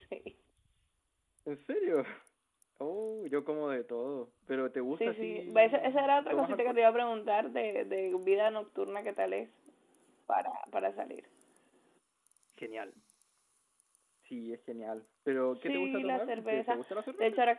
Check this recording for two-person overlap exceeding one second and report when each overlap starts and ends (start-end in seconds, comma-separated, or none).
4.9-6.8, 15.6-16.8